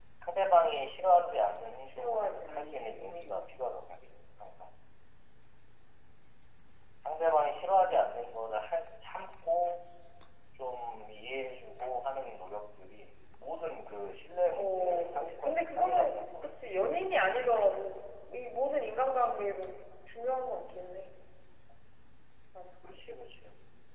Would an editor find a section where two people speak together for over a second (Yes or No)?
Yes